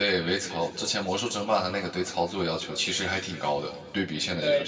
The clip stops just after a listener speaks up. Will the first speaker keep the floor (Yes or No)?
No